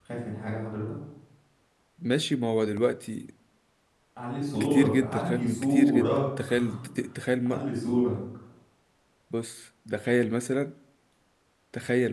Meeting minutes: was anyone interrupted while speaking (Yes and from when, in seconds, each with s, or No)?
Yes, from 4.6 s